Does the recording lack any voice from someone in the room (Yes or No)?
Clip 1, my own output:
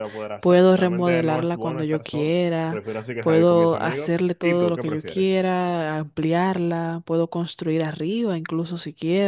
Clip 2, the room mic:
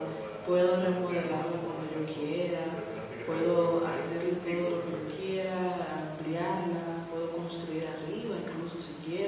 Yes